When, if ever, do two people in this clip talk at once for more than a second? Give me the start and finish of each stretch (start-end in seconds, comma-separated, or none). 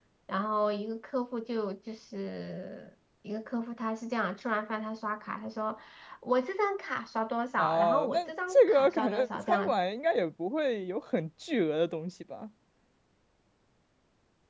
7.6-9.7